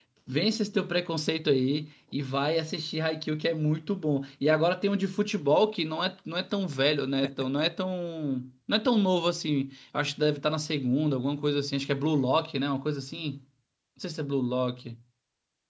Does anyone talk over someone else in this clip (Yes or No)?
No